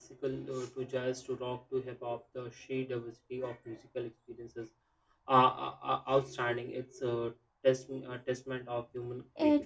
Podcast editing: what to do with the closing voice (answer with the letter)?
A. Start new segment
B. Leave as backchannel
A